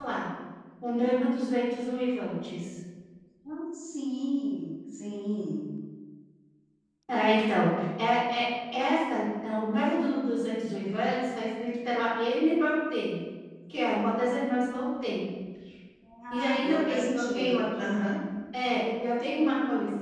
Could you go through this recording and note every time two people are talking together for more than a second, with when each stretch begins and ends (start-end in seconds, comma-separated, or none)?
16.3-18.1